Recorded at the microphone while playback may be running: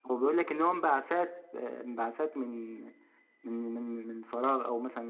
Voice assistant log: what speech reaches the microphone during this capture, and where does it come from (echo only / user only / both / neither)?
user only